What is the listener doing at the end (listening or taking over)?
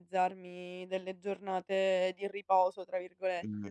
taking over